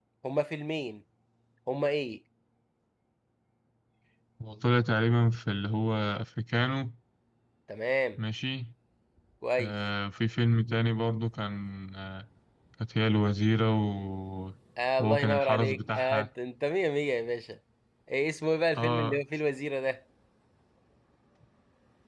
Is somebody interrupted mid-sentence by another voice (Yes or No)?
Yes